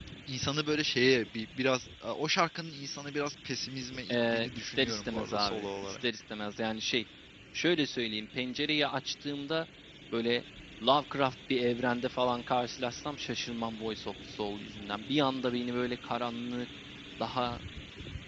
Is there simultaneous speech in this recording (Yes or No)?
Yes